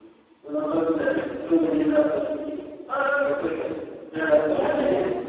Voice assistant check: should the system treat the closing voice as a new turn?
No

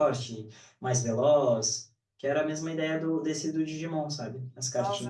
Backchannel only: No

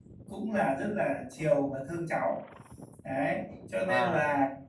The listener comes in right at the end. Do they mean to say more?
No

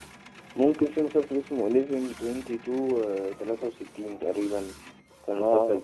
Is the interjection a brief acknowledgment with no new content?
No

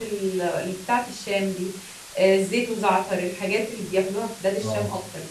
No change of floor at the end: No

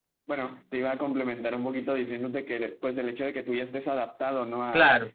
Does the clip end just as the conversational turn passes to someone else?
No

